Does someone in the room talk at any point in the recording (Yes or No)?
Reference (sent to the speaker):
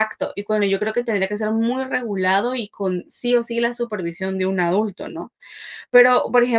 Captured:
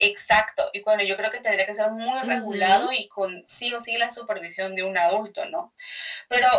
Yes